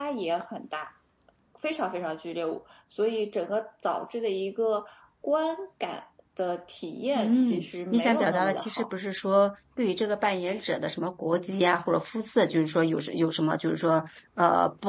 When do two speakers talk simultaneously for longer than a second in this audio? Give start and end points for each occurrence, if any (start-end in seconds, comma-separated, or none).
7.2-8.9